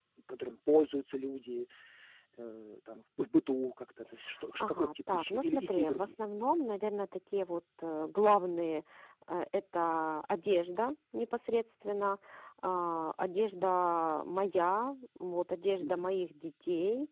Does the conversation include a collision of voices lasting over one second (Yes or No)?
Yes